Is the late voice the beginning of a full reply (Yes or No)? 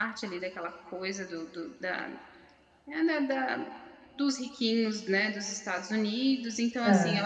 No